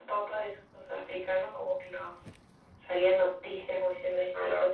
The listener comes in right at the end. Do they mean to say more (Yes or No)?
Yes